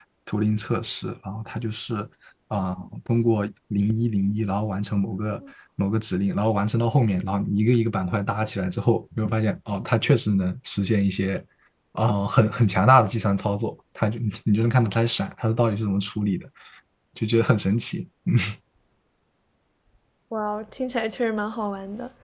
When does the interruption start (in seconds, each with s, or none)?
none